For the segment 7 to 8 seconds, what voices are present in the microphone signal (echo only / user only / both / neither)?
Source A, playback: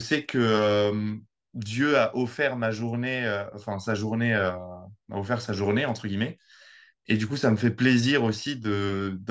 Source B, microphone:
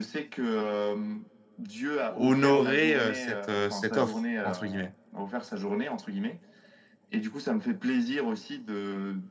echo only